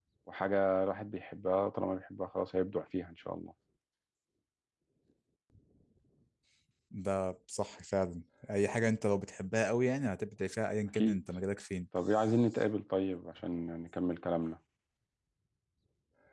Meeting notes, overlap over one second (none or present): none